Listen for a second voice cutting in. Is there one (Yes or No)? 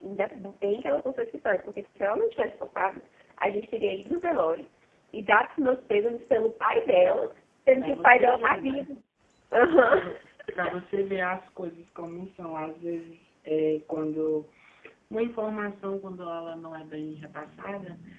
Yes